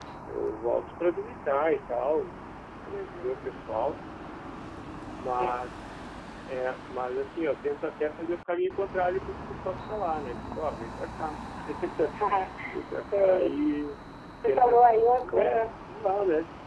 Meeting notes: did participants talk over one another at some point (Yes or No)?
Yes